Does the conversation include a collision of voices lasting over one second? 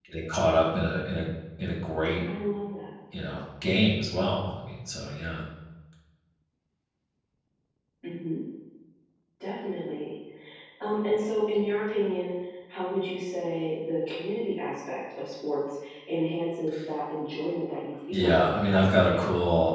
Yes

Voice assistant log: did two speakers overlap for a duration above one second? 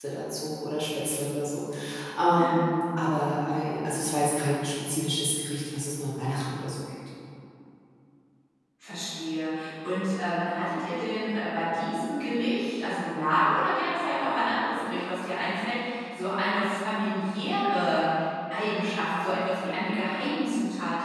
No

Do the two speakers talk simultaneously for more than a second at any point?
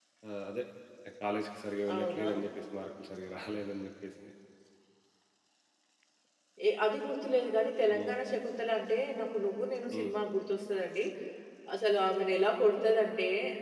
No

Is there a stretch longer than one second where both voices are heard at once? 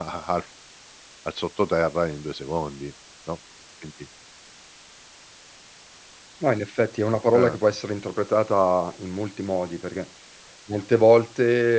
No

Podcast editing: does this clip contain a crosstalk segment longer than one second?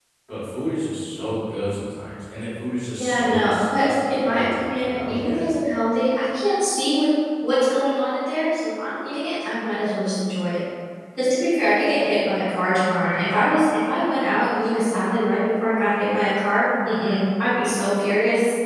Yes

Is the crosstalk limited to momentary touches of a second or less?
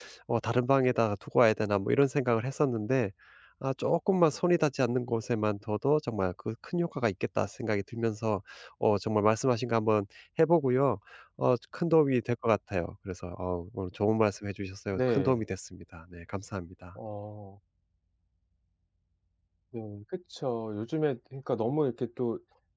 Yes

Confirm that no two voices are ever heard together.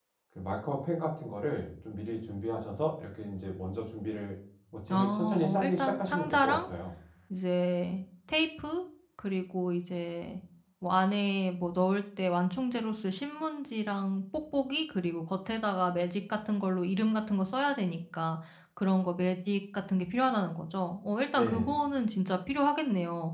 No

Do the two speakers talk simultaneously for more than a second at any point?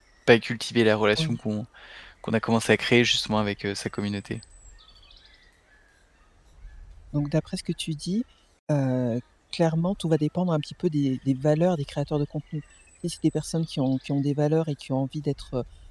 No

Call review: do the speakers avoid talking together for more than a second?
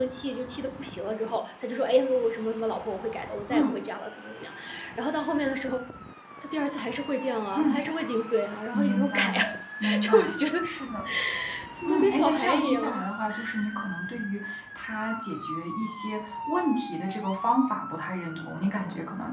No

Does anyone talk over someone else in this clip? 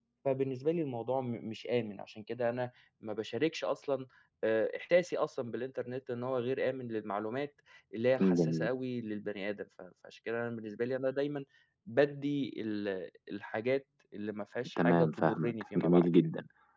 Yes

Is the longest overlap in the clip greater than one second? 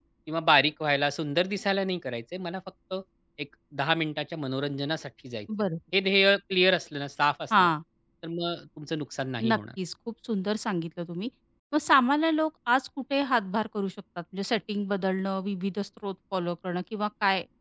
No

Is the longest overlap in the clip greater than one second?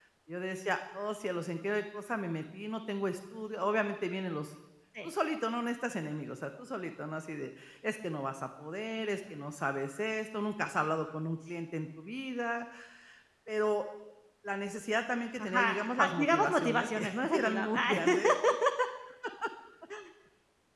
Yes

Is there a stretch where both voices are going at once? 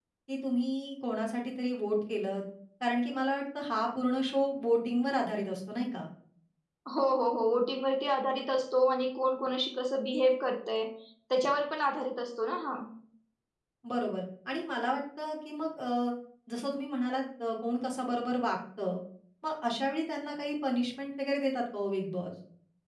No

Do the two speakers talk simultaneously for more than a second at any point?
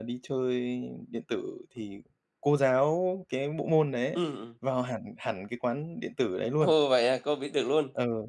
No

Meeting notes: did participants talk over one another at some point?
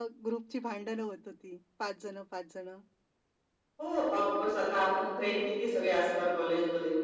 No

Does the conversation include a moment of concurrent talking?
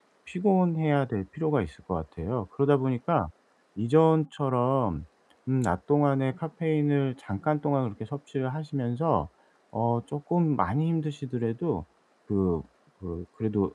No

